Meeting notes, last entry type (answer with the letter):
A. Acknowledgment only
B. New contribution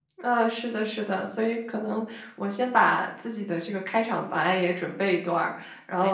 A